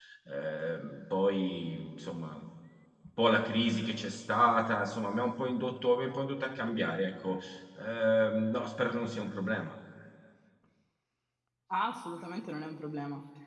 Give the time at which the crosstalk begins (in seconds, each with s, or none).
none